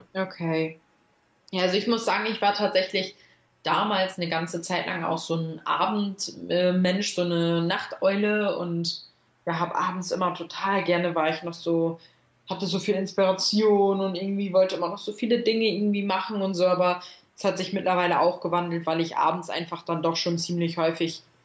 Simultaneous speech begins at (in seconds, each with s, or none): none